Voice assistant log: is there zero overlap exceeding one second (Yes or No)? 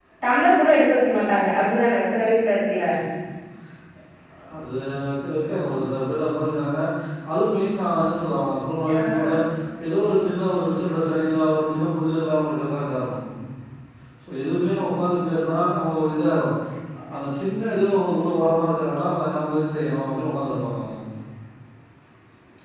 Yes